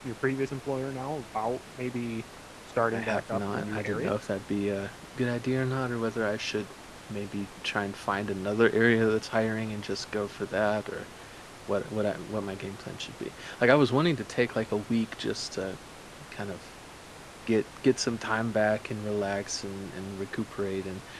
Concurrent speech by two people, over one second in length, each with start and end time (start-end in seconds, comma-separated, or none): 2.9-4.1